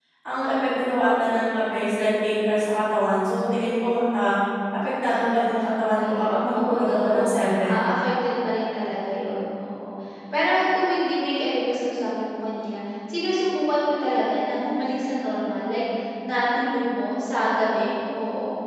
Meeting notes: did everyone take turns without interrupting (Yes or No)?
No